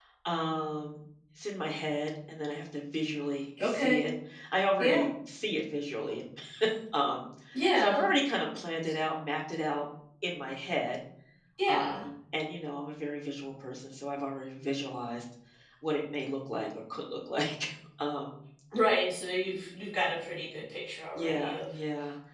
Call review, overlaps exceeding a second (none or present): none